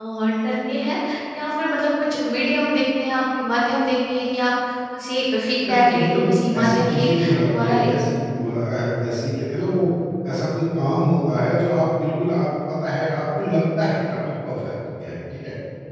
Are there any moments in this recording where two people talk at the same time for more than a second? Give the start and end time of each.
5.7-7.1

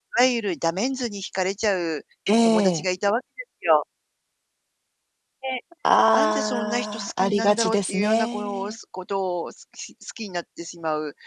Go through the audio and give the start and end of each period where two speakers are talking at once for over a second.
6.2-8.7

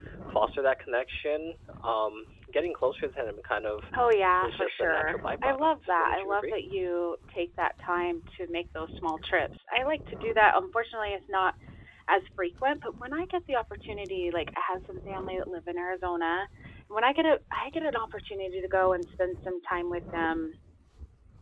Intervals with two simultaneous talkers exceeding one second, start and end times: 4.4-6.6

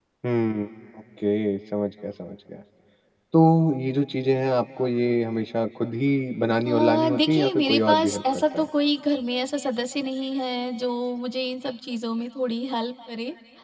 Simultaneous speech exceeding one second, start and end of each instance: 6.6-8.7

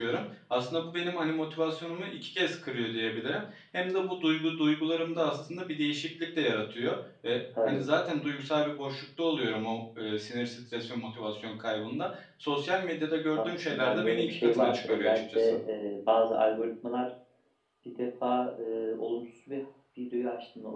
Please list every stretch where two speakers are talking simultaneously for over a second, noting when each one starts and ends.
13.4-15.6

